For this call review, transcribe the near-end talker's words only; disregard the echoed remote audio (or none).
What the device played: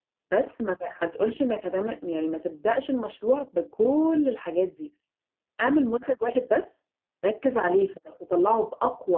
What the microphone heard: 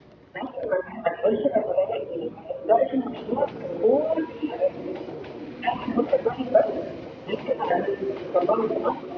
none